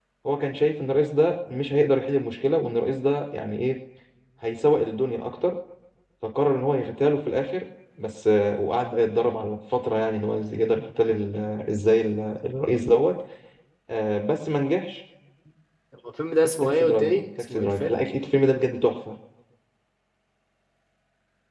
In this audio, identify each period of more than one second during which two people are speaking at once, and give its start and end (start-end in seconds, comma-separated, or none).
16.6-18.0